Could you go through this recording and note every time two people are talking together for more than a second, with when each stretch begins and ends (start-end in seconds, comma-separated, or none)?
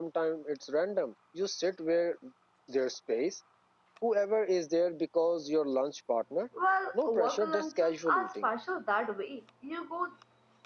6.9-8.5